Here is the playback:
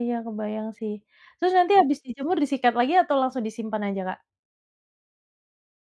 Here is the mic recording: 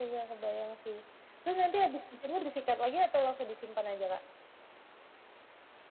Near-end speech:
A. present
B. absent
B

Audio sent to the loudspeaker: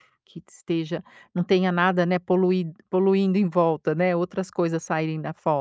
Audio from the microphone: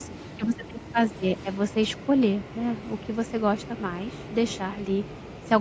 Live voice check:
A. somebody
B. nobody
A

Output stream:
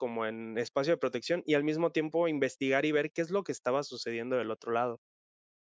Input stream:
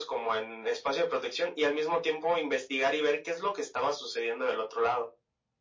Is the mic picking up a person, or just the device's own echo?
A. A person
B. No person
B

